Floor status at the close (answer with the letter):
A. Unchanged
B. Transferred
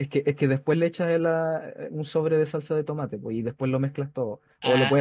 B